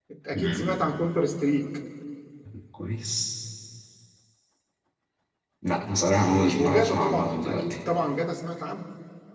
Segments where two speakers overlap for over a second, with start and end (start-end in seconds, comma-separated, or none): 6.3-7.8